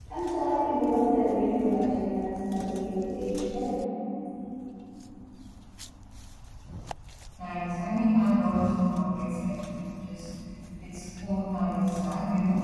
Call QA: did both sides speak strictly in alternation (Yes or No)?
Yes